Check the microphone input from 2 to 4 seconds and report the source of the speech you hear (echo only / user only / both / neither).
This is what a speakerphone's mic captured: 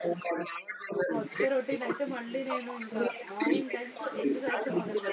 both